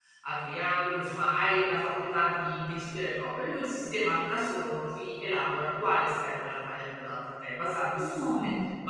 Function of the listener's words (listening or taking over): listening